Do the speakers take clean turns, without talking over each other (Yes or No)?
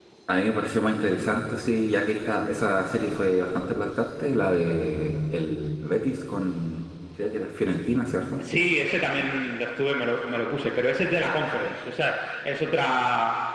Yes